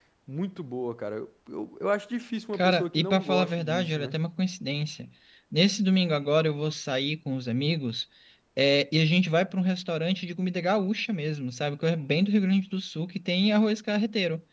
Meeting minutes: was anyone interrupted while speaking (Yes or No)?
Yes